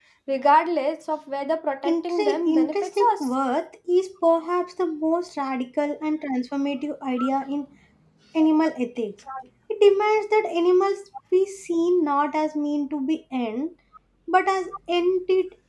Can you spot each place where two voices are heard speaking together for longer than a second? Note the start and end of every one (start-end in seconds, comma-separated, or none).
1.9-3.3